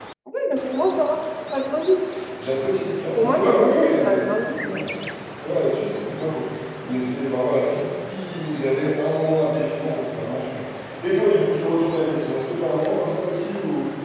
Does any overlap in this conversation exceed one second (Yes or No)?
Yes